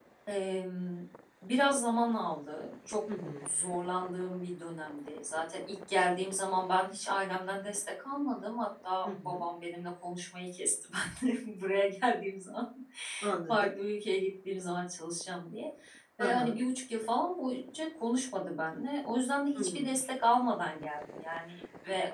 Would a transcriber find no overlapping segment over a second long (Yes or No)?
Yes